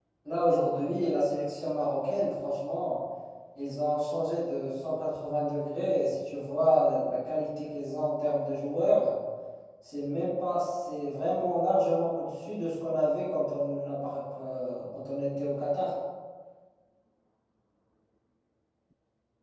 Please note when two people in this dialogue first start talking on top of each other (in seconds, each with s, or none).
none